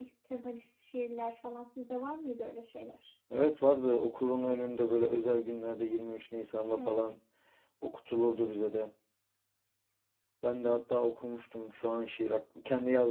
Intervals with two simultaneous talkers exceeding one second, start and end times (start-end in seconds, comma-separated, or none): none